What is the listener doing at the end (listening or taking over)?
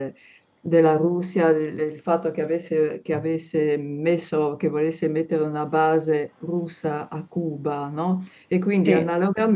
listening